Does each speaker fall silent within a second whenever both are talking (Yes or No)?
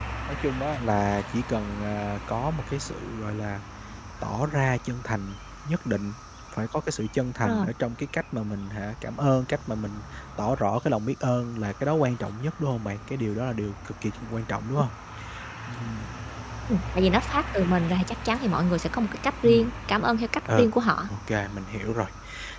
Yes